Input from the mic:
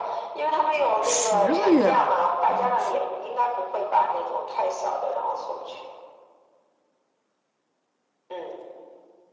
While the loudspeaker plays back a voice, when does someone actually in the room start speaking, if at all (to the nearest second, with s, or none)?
1 s